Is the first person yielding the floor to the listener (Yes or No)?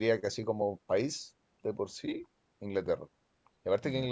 No